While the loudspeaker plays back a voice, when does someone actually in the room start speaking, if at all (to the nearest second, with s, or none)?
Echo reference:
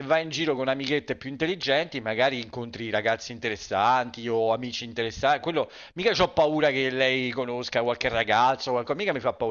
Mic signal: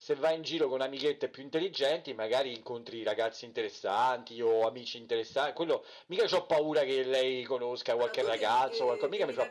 8 s